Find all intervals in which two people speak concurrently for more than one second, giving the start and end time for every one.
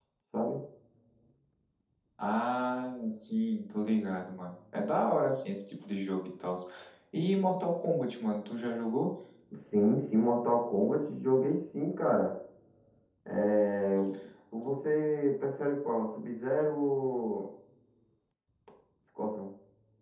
none

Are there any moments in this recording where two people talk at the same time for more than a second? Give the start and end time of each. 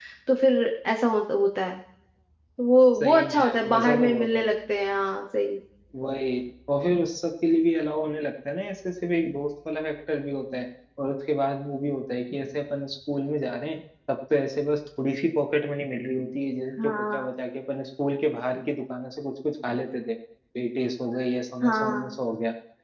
3.0-4.4

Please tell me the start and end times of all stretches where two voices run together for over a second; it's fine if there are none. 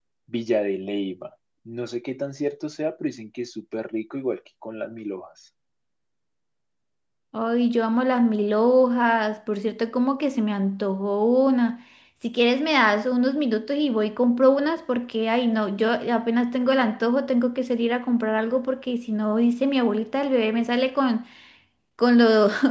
none

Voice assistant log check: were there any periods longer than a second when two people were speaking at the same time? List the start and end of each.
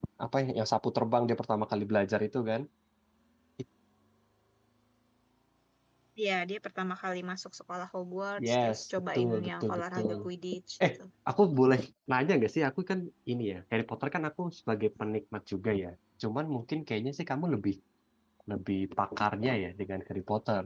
8.5-10.2

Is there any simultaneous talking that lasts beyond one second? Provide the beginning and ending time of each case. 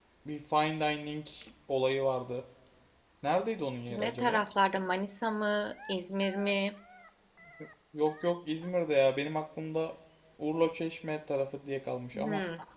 none

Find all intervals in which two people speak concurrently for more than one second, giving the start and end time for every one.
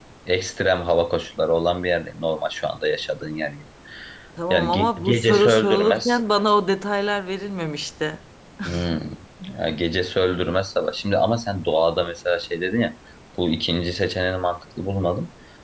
4.5-6.2

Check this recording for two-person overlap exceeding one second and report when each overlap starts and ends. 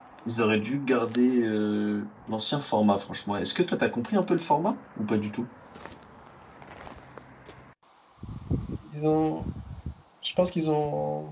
none

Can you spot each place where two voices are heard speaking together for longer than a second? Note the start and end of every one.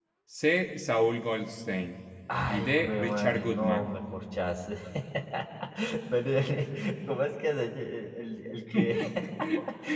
2.5-3.9

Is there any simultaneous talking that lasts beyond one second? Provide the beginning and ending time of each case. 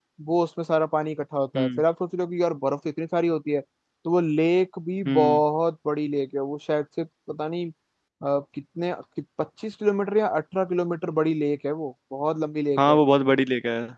none

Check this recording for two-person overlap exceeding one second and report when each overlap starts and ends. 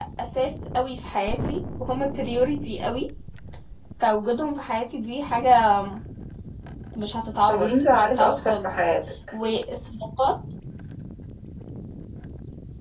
7.5-8.8

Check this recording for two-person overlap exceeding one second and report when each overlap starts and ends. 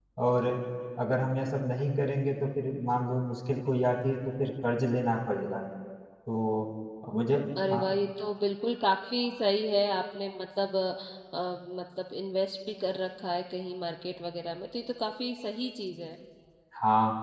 none

